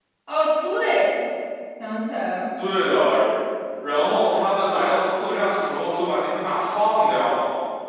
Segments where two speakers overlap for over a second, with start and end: none

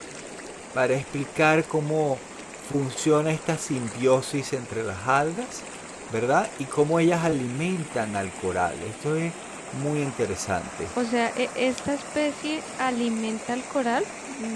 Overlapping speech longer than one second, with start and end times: none

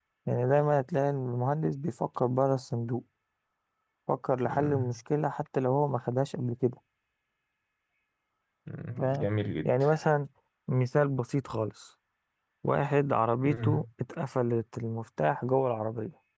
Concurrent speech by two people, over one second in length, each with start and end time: none

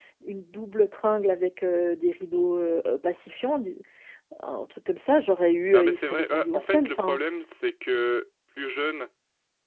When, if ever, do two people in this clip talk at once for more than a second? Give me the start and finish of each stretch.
5.7-7.2

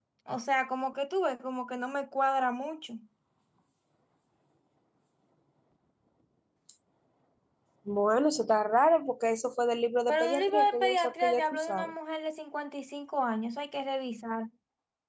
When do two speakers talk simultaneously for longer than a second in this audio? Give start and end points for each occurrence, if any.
10.1-11.9

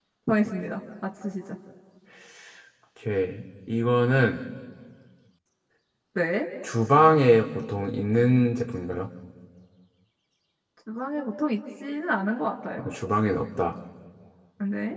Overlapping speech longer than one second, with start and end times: none

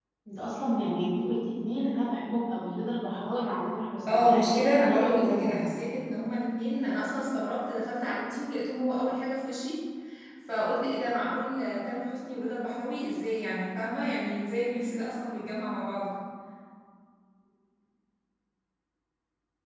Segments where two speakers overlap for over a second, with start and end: 4.1-5.8

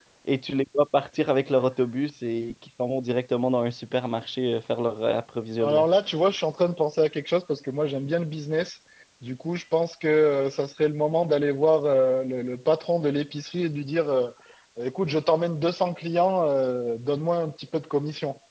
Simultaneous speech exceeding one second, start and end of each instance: none

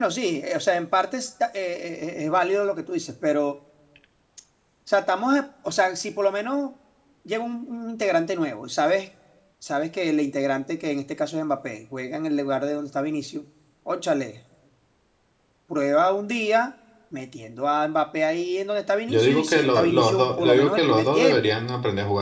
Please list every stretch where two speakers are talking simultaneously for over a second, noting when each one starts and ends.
19.1-21.4

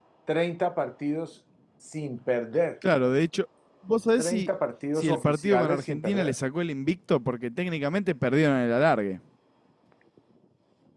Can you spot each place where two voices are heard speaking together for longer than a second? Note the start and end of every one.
5.0-6.3

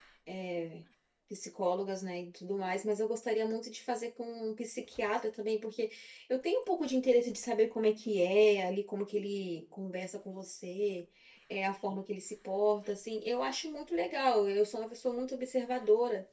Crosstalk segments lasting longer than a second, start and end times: none

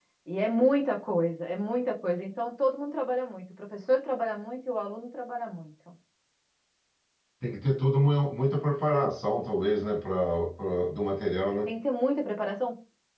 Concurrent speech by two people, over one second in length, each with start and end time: none

